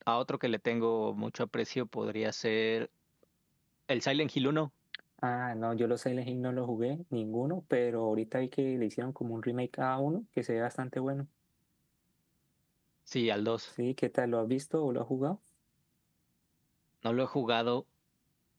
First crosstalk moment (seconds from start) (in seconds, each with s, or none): none